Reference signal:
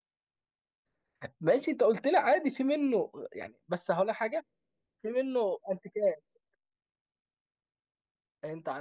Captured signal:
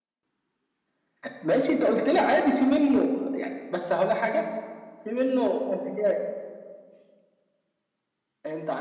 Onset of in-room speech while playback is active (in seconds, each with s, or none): none